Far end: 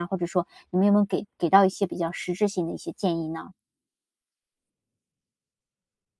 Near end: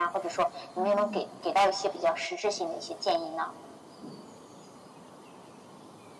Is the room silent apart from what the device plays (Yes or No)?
No